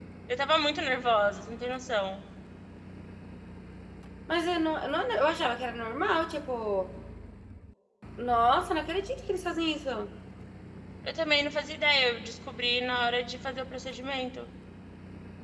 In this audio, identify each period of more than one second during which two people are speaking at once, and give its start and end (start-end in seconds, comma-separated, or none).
none